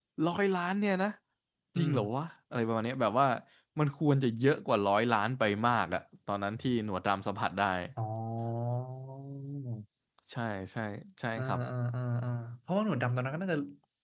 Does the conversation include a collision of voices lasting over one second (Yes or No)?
No